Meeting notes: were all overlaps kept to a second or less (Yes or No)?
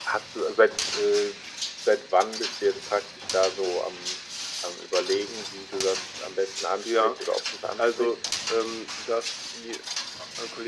Yes